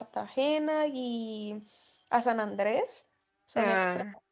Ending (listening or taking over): listening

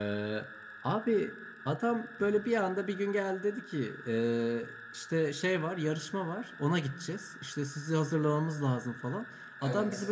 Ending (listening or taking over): listening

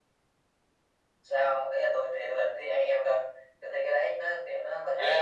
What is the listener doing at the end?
listening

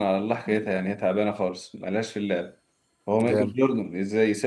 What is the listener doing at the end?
listening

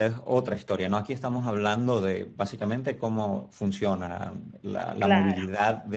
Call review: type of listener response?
listening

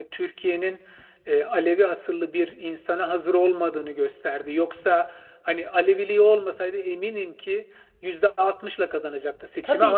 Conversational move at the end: listening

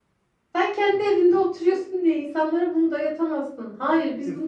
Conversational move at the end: taking over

